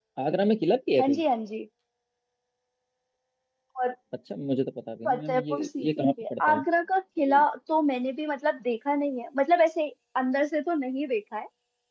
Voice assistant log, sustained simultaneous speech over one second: present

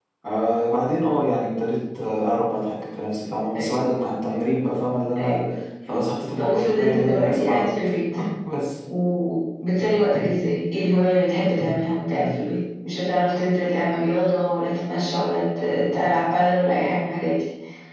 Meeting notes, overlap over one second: present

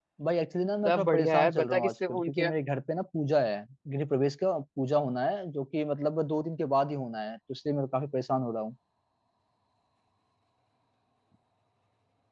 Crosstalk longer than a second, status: present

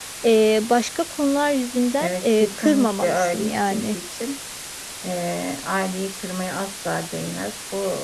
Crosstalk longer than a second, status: present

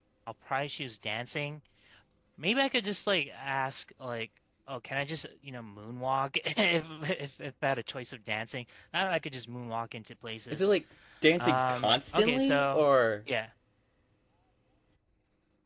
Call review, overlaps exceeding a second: present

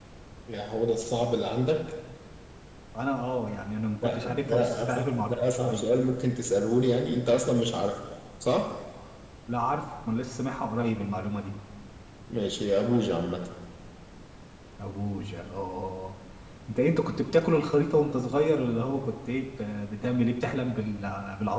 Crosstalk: present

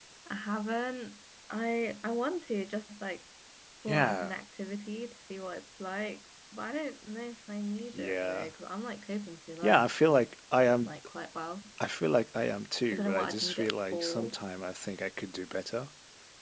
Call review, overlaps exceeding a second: present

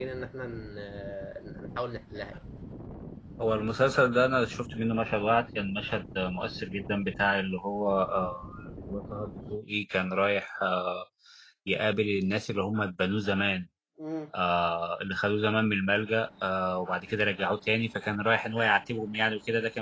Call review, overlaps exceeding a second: none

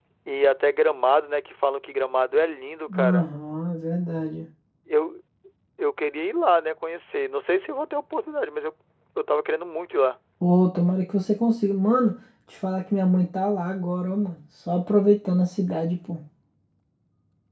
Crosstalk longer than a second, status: none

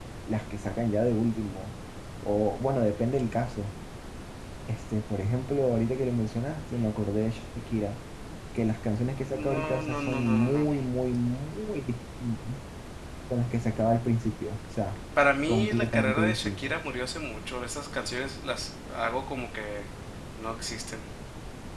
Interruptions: present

